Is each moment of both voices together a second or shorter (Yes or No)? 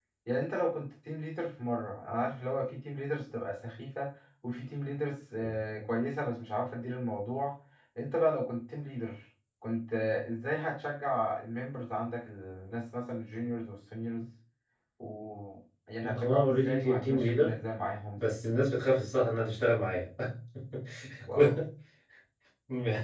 No